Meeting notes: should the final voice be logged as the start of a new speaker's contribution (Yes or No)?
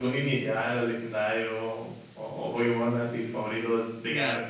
Yes